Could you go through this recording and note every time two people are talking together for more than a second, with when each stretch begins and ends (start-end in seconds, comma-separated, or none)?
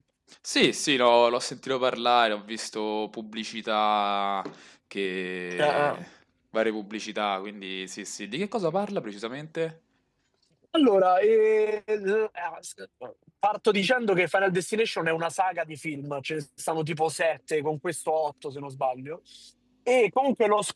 none